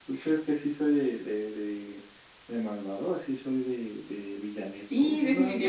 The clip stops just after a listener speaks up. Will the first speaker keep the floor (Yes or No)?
No